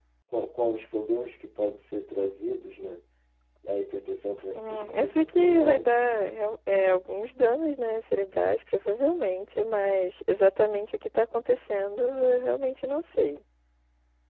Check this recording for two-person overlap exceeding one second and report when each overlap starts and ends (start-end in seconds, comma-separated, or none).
4.6-5.9